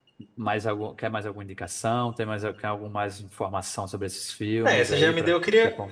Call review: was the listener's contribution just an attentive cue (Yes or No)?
No